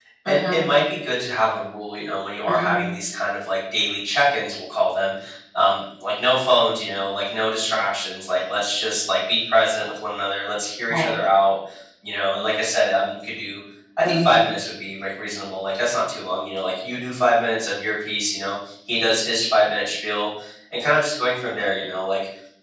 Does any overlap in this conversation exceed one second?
No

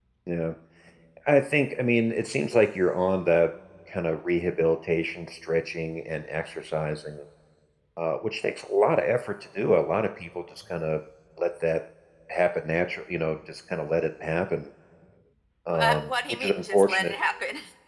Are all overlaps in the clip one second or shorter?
No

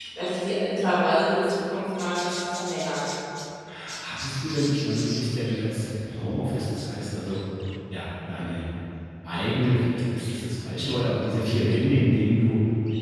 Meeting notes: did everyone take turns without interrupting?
Yes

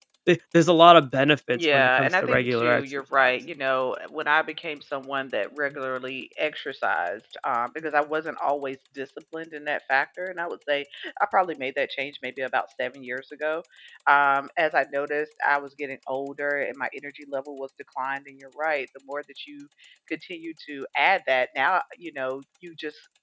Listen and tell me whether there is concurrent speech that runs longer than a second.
Yes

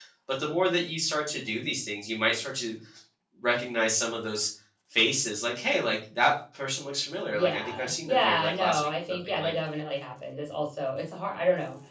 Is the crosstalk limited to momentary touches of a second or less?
No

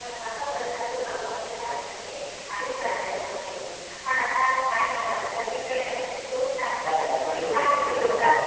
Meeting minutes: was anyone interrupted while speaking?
Yes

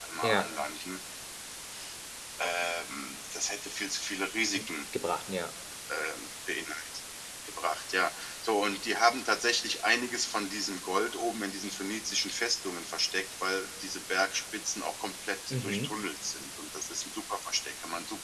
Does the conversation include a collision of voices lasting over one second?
No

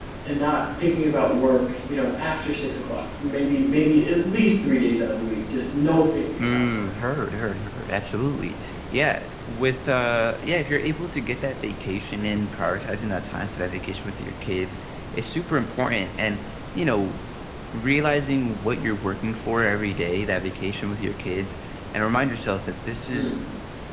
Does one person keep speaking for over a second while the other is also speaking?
No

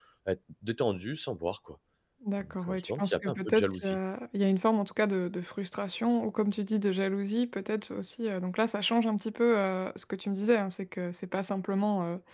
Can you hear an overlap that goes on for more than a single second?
Yes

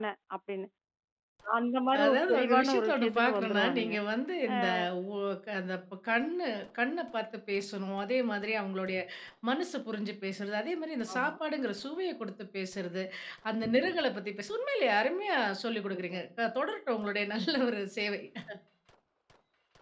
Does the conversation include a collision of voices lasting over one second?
Yes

